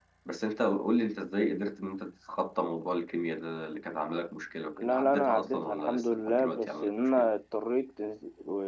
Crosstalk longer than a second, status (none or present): present